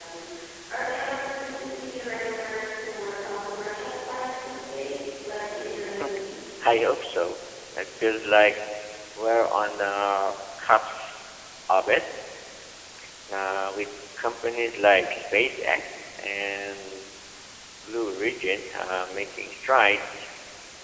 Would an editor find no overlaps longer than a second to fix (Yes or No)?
Yes